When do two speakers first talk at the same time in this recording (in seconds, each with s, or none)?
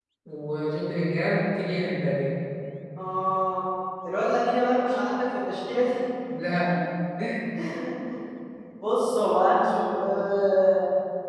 none